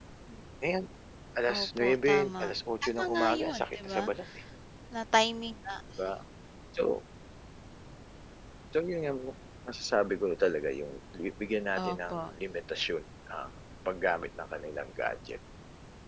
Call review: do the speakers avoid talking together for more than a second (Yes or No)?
No